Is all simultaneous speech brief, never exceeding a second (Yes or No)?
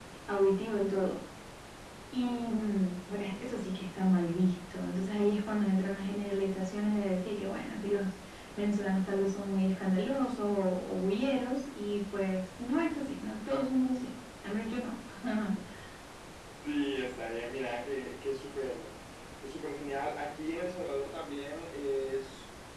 Yes